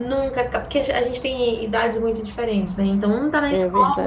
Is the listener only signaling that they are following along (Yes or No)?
Yes